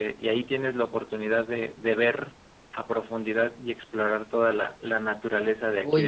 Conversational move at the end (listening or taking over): taking over